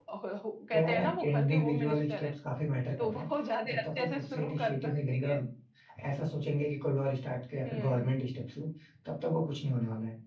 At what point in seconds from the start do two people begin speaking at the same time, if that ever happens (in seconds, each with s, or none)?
0.7 s